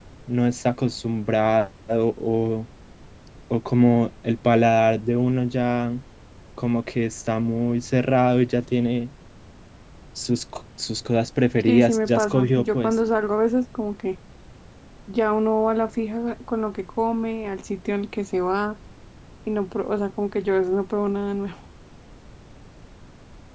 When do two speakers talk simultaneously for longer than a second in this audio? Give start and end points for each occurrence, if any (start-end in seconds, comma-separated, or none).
11.6-13.0